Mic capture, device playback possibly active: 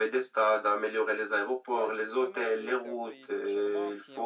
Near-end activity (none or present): present